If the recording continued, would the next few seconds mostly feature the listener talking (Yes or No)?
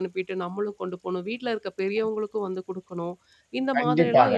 Yes